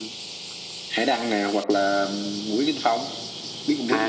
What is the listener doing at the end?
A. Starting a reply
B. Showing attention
A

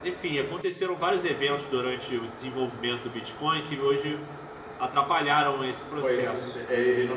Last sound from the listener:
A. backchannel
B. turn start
B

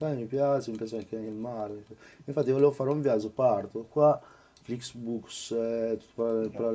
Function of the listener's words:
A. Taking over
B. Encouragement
B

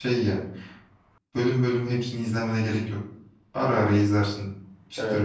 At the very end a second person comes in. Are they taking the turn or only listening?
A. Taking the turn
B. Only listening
A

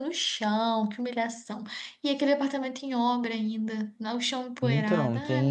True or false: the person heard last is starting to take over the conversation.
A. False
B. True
B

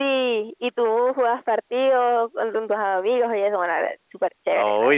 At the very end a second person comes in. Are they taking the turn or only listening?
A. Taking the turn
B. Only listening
A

